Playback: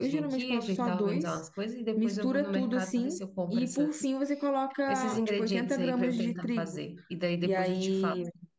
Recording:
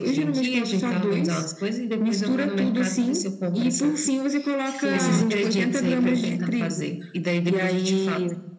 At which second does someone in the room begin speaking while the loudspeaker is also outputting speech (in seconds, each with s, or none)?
4.6 s